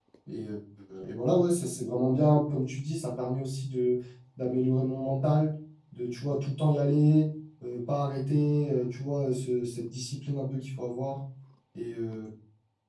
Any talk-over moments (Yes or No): No